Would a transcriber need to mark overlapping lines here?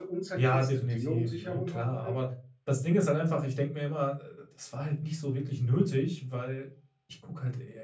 Yes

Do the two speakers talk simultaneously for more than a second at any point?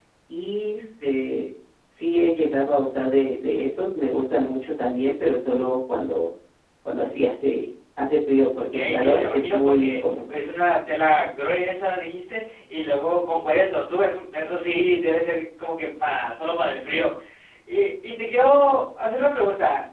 Yes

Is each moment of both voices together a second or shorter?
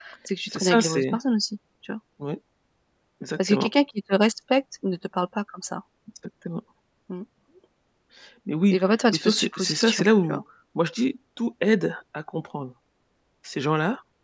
No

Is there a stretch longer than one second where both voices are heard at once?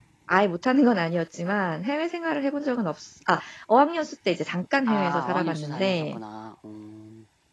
Yes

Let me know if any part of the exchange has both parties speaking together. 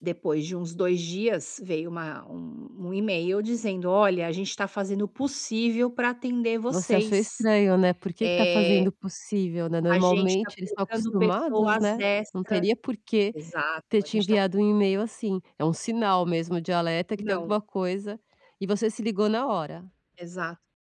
Yes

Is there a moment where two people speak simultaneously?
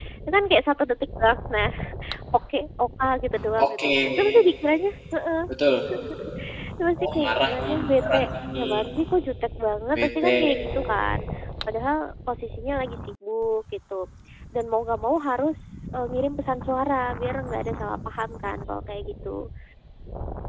Yes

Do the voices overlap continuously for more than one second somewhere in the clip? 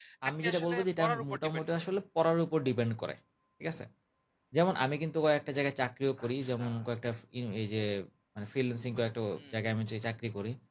Yes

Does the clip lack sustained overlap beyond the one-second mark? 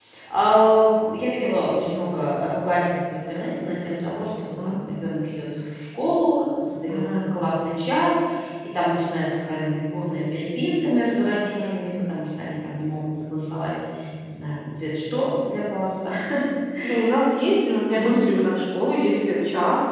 Yes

